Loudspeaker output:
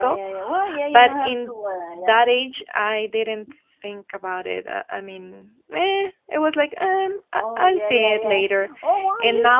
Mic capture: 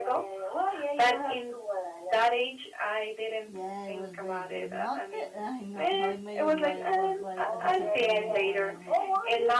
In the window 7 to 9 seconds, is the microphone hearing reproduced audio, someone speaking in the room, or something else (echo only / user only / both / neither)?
both